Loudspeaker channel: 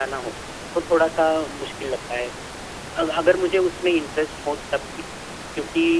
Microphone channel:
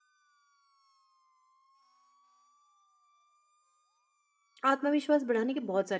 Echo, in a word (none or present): none